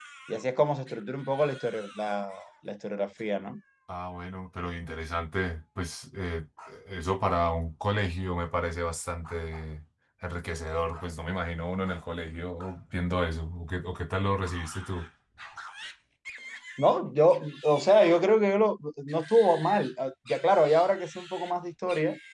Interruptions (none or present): none